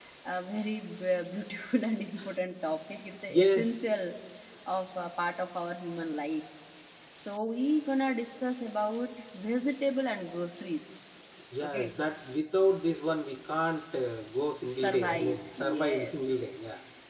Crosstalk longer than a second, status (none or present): present